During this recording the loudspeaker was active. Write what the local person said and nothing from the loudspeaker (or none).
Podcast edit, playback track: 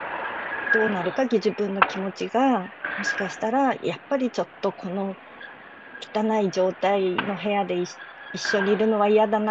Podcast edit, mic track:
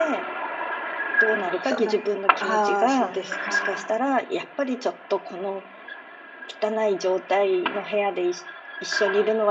そうなん、ああ、そうですか。